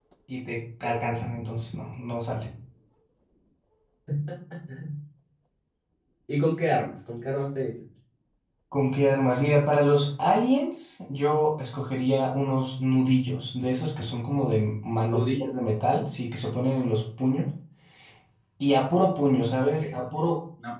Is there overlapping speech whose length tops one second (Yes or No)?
No